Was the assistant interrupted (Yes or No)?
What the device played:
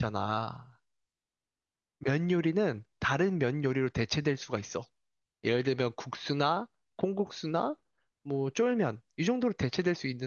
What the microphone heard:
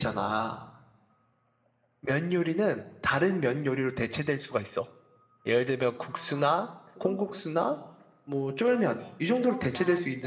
Yes